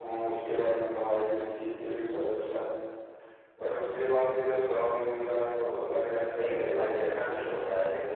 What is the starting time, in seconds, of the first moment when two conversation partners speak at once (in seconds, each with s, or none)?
6.3 s